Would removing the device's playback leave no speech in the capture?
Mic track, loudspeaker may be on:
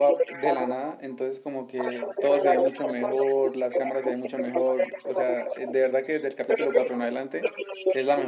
No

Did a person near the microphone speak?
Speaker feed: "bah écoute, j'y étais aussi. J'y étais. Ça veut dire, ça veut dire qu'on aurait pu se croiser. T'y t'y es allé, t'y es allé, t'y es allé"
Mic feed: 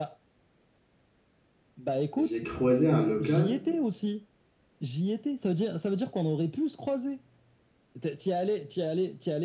Yes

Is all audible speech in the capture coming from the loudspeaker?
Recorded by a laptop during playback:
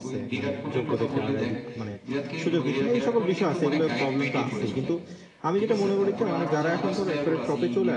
No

